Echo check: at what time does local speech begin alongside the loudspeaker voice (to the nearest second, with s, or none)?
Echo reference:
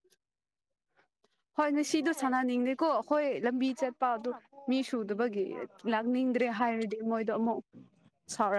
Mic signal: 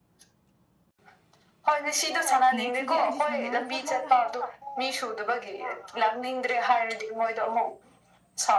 3 s